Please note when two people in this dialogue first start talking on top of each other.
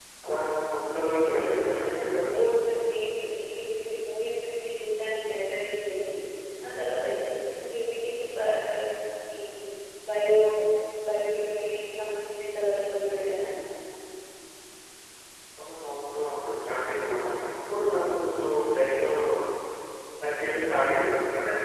1.2 s

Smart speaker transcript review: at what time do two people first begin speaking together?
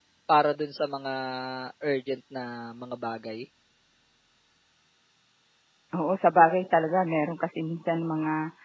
none

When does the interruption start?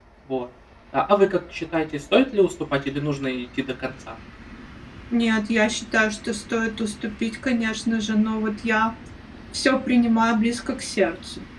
none

